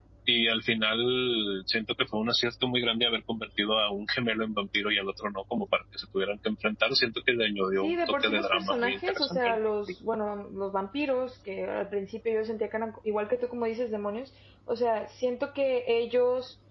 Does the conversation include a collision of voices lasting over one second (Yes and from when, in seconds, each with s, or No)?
Yes, from 7.8 s